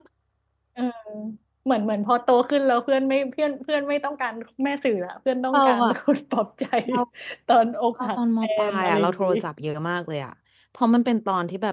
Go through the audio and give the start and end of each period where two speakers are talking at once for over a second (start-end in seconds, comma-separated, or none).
8.0-9.3